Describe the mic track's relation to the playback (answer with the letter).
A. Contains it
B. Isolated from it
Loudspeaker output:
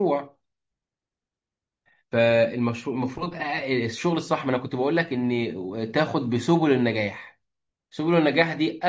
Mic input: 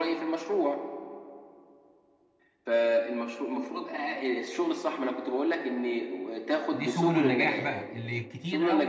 A